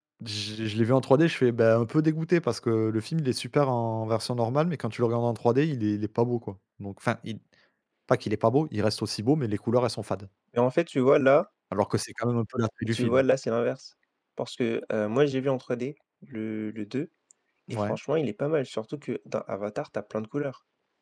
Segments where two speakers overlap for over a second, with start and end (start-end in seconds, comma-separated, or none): none